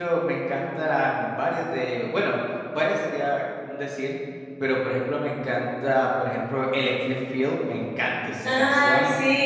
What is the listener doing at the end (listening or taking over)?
taking over